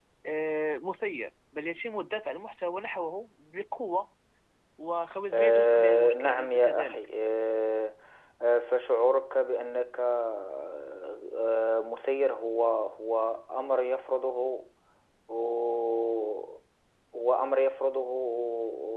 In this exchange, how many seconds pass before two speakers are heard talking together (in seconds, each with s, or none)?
5.3 s